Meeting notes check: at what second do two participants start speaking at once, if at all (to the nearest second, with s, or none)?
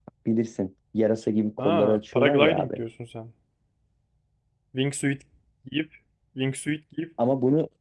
2 s